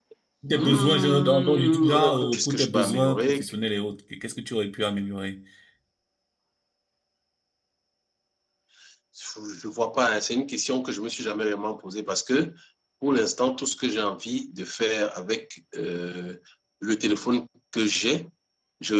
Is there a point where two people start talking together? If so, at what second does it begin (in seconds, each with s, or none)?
0.5 s